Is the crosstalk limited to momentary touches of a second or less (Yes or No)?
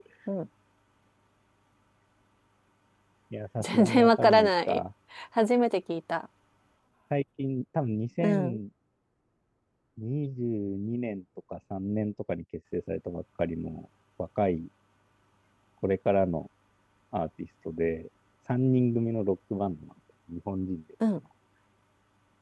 No